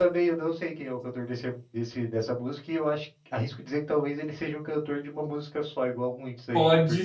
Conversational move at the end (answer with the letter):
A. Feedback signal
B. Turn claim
B